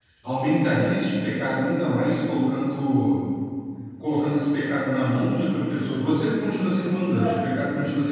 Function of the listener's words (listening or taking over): listening